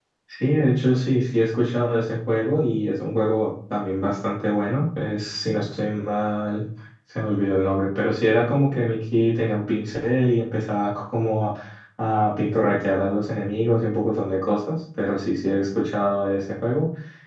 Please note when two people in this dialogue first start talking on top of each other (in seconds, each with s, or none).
none